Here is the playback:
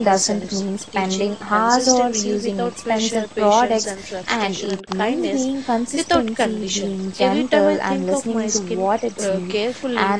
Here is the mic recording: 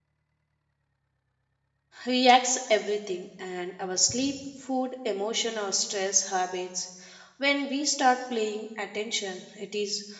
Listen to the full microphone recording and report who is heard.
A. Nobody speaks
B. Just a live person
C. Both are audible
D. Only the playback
B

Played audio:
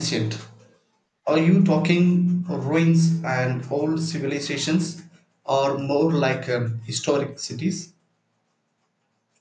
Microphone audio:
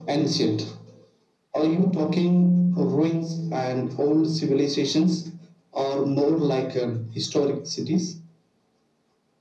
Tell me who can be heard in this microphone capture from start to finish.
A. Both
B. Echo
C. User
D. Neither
B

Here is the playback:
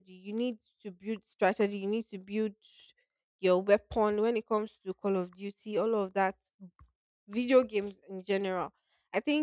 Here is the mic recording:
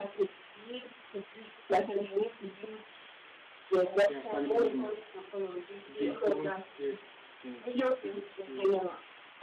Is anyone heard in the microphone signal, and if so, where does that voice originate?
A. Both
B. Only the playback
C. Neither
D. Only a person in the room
A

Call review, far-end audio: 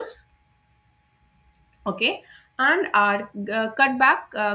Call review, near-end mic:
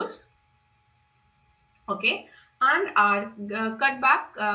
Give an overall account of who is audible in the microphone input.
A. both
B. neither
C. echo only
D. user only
C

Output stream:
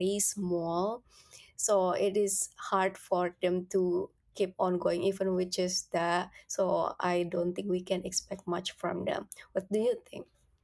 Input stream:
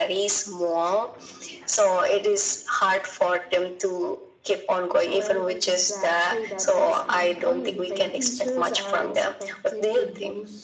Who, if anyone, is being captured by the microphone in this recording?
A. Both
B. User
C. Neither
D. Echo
A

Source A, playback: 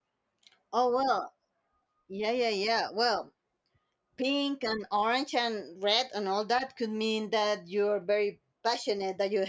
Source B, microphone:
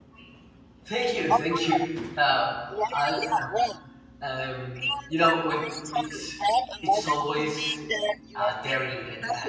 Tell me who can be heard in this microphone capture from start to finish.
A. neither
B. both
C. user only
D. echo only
B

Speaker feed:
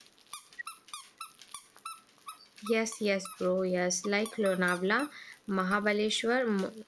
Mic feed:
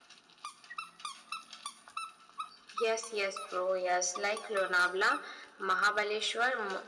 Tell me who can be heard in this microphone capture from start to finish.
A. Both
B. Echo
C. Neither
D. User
B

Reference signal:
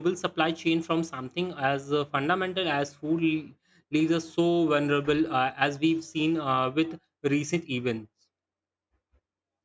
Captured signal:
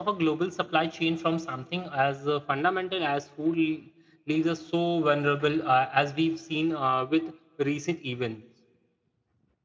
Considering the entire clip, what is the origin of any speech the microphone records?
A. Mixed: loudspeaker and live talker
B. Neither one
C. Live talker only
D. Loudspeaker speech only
D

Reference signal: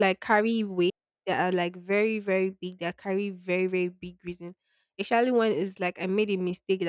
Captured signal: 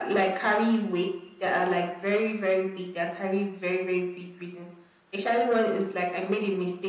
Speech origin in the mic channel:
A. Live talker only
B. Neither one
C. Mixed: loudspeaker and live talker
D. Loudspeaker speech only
D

